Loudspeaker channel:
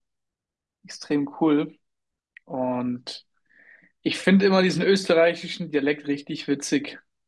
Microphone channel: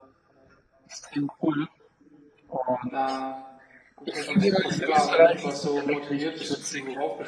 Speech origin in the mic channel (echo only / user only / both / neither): both